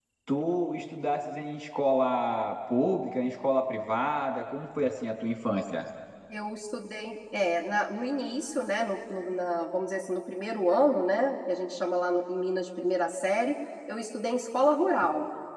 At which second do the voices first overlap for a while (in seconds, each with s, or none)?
none